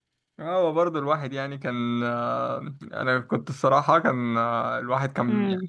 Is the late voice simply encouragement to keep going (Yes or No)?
Yes